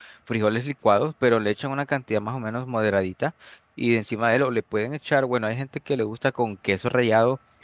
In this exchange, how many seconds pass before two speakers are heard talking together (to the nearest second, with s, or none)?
none